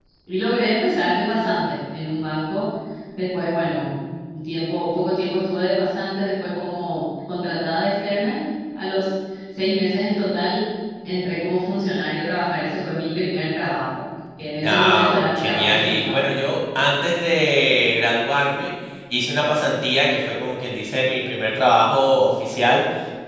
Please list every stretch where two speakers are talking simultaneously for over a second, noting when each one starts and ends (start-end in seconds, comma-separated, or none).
14.6-16.3